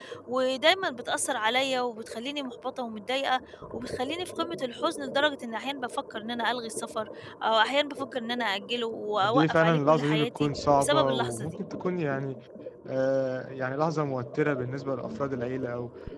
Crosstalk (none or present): present